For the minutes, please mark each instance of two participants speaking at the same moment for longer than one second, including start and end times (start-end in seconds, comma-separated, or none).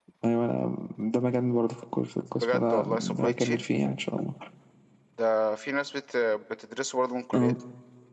2.4-3.6